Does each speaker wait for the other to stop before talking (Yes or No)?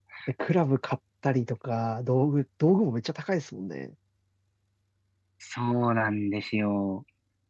Yes